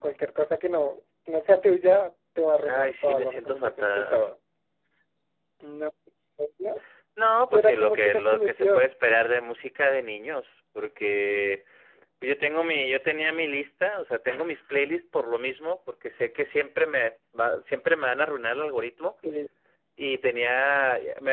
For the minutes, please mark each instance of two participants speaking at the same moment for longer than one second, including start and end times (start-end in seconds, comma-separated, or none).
2.6-4.2, 7.5-8.9